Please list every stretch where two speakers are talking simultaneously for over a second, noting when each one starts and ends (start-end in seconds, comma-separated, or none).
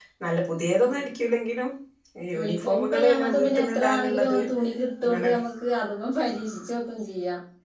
2.4-4.4